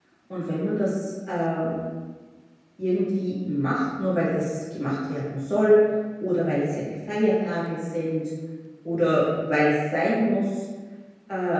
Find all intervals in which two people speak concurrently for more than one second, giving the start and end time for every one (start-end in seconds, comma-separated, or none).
none